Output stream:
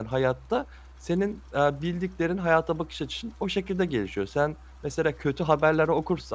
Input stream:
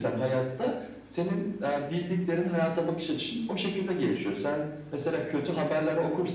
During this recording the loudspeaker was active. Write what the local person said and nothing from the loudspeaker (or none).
none